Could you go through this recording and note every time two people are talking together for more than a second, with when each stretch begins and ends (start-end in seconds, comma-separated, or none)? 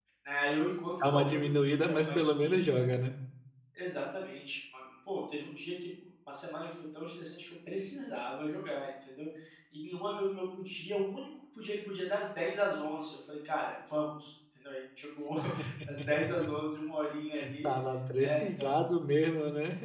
1.0-2.9